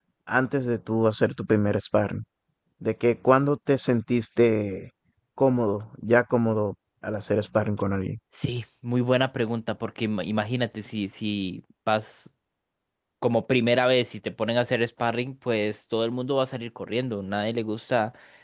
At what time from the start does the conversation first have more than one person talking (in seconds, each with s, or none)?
none